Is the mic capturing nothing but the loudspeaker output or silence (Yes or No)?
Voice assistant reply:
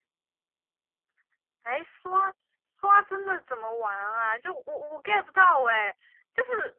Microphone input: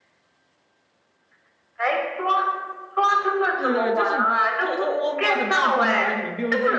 No